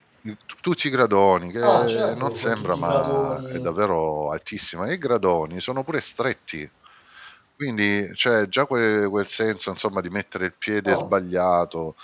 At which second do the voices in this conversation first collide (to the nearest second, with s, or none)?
2 s